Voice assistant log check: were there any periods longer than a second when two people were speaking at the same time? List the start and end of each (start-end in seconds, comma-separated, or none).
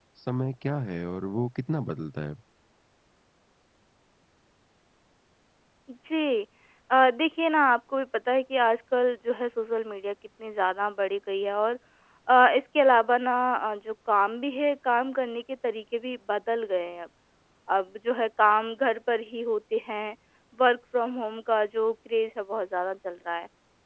none